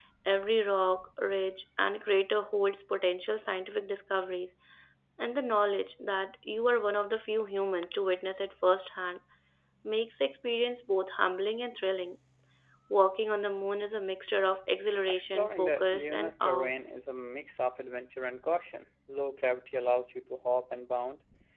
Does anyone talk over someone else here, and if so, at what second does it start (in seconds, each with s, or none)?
15.1 s